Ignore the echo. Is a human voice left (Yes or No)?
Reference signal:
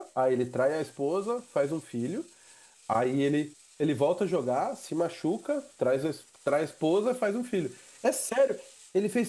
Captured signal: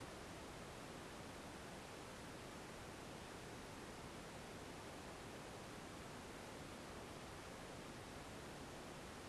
No